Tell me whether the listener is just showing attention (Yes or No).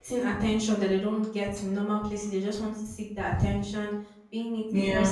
Yes